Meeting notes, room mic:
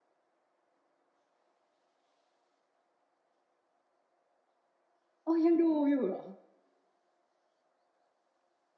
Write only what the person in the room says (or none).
เออ ยังดูอยู่เหรอ?